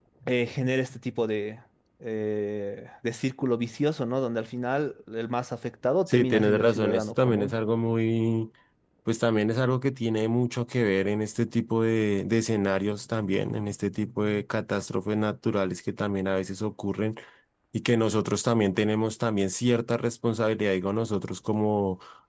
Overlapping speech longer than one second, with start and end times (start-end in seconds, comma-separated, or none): 6.1-7.5